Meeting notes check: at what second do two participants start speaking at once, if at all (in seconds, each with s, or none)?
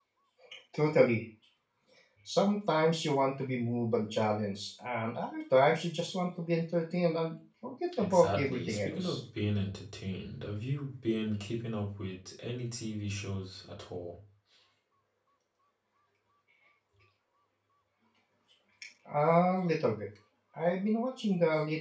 7.9 s